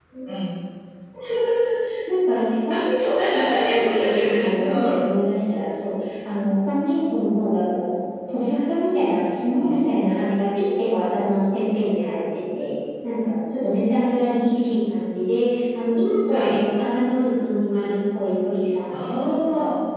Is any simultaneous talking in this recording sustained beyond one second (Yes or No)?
Yes